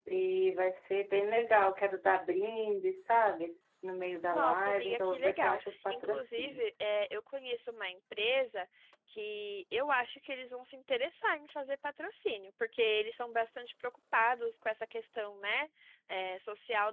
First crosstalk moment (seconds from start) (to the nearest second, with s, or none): 4 s